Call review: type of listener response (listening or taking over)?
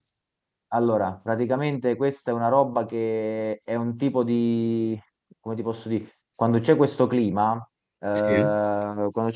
listening